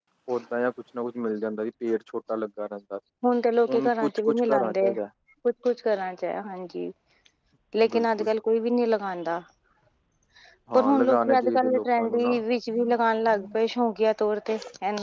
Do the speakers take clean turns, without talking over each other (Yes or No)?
No